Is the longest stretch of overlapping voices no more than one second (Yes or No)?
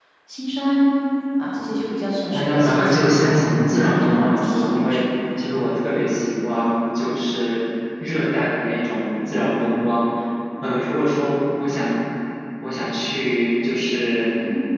No